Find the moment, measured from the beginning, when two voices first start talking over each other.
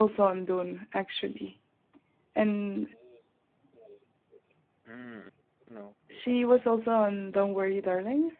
6 s

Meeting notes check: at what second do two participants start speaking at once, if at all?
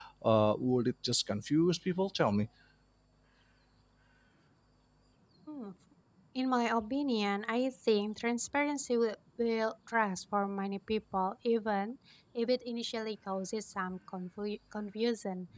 none

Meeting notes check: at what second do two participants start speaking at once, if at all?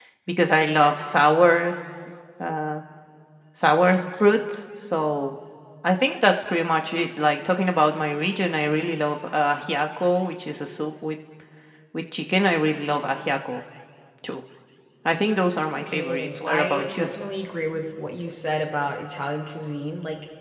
16 s

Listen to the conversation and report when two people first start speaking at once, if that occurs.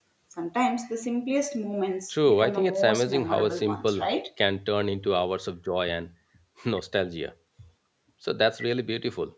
2 s

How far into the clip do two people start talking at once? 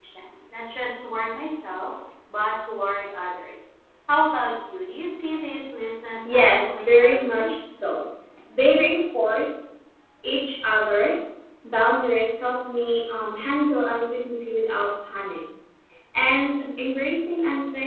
6 s

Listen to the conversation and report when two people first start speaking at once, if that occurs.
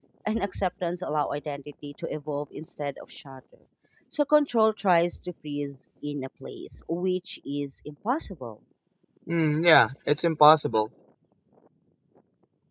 none

